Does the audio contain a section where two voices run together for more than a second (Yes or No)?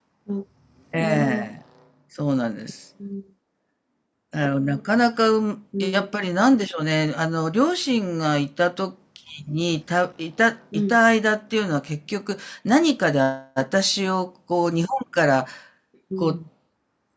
No